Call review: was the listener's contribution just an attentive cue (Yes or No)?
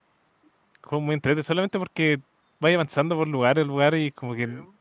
Yes